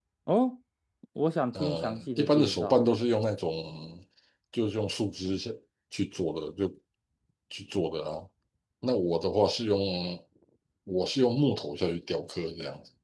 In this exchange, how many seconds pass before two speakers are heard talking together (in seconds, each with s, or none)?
1.5 s